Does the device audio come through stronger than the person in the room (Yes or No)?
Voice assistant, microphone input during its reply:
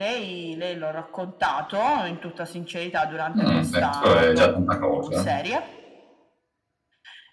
No